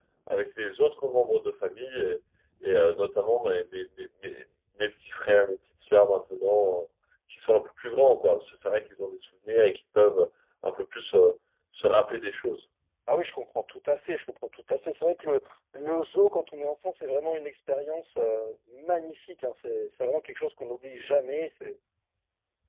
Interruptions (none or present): none